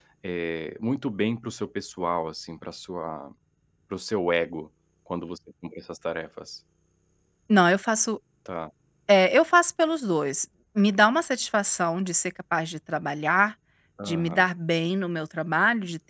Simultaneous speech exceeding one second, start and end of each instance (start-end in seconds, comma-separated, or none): none